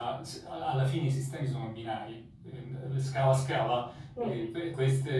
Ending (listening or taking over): listening